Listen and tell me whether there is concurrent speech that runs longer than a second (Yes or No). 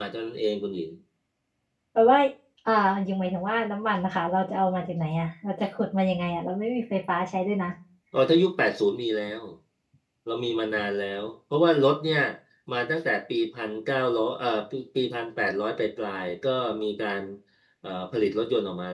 No